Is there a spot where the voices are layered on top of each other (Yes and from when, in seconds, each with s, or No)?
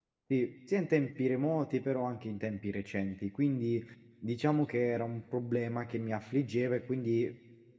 No